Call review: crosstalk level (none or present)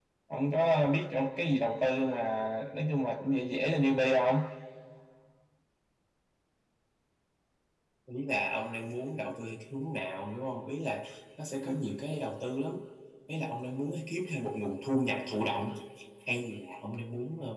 none